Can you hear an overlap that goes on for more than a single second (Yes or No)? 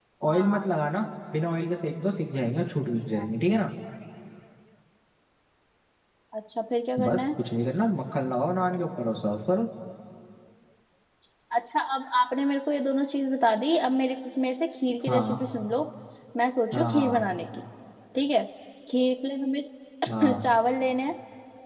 No